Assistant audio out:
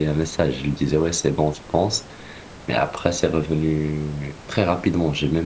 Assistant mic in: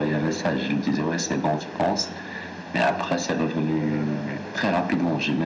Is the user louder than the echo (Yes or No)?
No